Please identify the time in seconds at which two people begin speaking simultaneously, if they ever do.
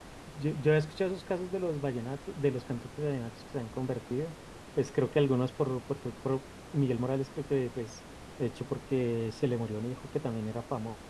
none

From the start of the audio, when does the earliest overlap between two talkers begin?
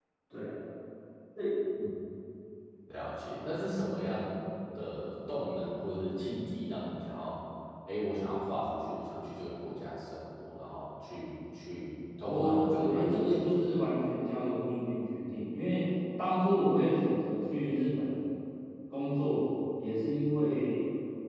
12 s

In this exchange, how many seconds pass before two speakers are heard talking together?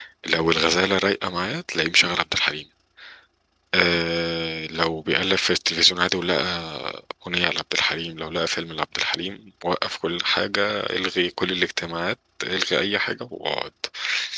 none

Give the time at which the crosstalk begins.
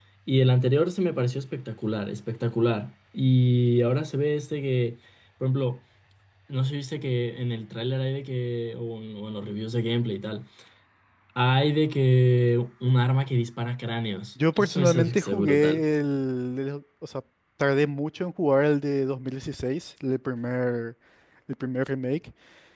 14 s

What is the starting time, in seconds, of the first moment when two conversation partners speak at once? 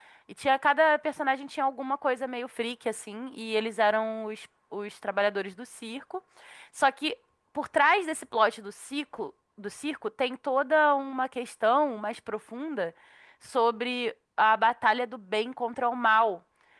none

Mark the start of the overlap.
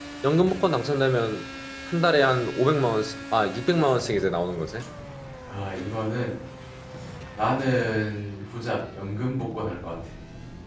none

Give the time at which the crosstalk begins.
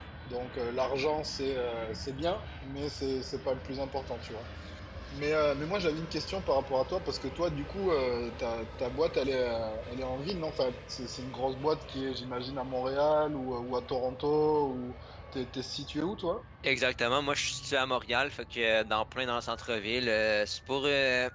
none

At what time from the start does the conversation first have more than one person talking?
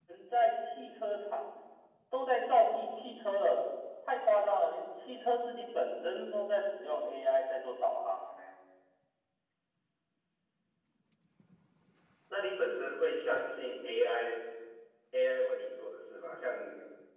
none

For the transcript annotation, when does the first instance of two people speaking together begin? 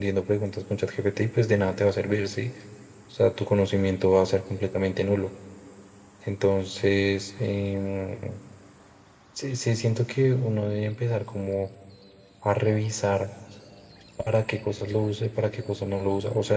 none

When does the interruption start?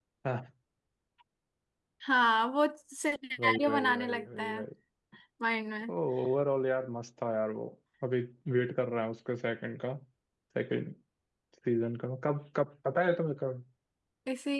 3 s

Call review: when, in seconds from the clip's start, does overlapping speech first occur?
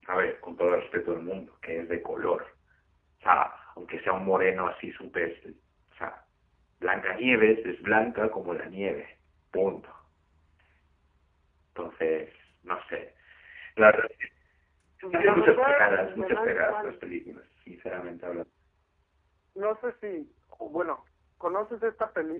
15 s

